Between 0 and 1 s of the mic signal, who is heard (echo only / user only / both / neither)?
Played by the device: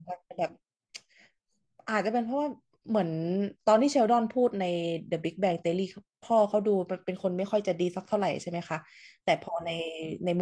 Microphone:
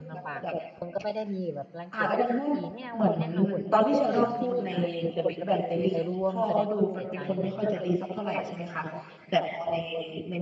both